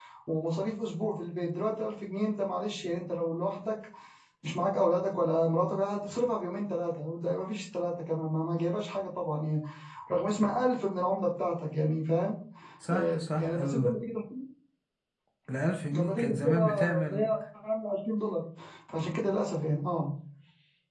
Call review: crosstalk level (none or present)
present